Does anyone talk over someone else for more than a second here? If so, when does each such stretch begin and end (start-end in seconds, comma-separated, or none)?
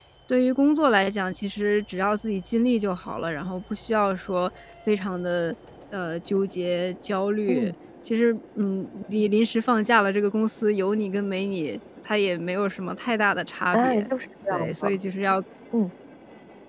none